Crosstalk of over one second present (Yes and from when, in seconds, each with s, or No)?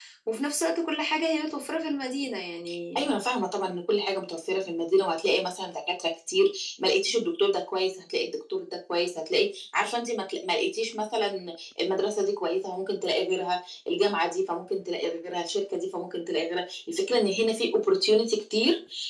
No